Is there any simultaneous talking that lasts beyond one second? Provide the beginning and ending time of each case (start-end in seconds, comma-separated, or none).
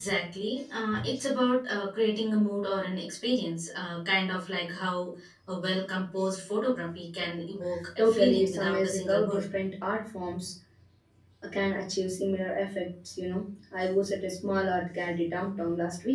8.0-9.4